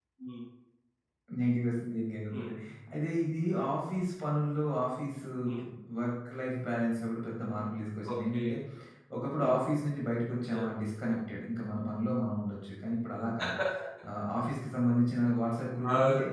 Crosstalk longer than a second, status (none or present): none